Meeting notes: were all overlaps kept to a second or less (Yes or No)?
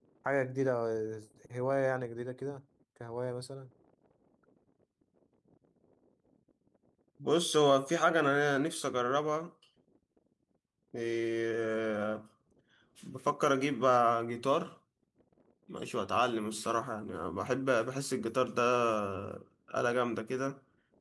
Yes